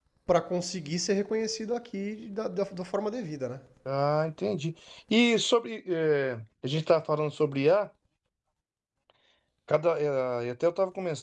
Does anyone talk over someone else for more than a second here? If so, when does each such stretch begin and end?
none

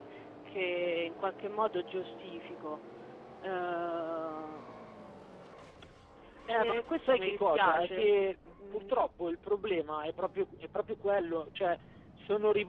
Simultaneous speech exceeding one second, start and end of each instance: 6.5-8.2

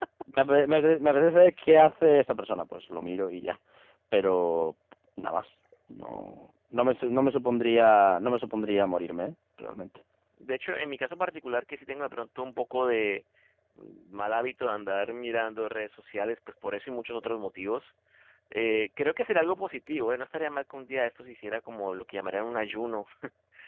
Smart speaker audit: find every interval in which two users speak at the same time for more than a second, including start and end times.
none

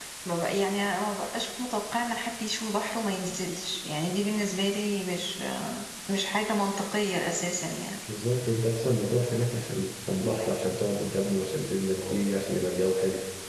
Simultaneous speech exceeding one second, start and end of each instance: none

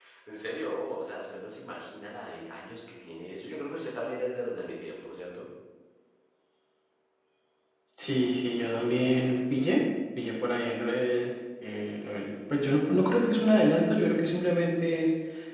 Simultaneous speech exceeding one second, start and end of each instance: none

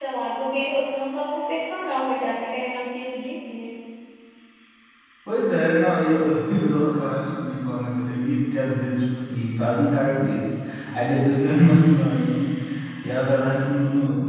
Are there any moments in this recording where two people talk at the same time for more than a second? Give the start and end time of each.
none

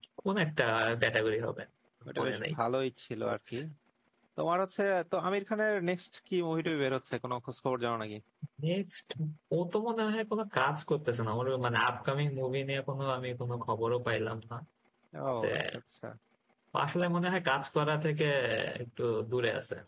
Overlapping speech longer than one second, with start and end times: none

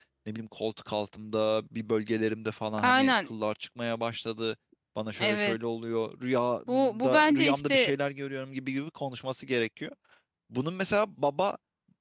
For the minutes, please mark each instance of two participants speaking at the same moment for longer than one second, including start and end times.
6.7-7.9

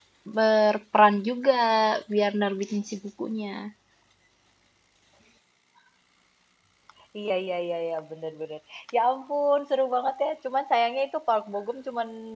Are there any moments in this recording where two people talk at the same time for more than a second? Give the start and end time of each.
none

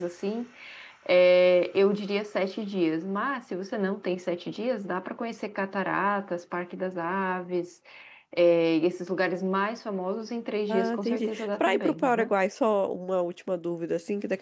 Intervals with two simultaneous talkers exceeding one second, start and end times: 10.7-12.3

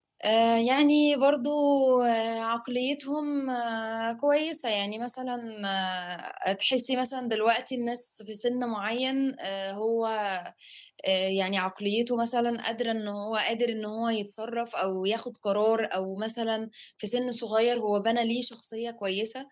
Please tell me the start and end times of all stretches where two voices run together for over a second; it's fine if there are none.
none

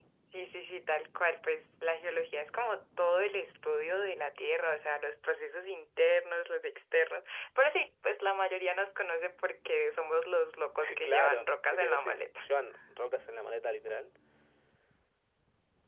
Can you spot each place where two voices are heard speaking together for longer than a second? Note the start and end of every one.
11.0-12.4

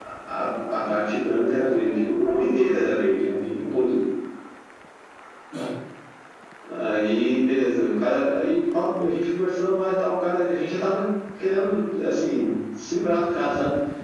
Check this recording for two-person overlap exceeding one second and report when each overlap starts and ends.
1.5-3.8

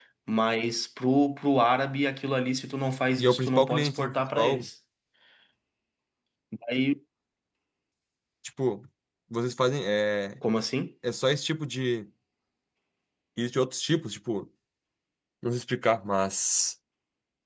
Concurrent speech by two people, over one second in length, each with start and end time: 3.2-4.6

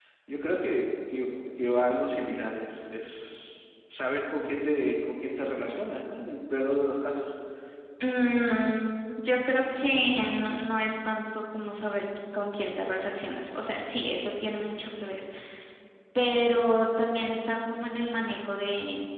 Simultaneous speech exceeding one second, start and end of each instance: none

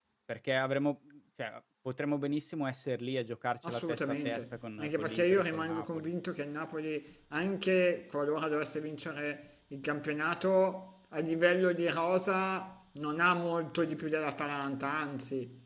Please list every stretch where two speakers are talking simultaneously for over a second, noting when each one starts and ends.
3.6-6.1

